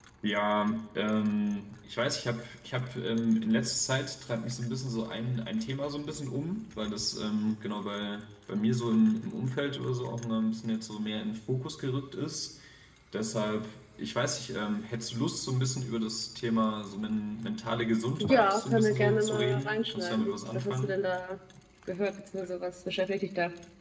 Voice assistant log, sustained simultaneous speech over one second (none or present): present